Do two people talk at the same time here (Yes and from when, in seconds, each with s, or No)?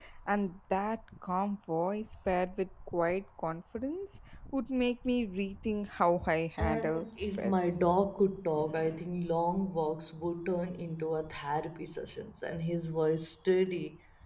Yes, from 6.6 s